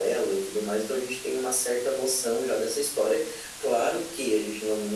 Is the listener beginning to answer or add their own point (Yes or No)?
No